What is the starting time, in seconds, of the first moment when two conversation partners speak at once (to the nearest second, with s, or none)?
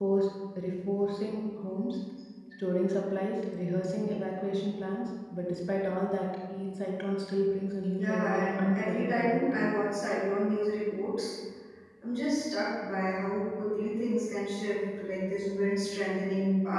8 s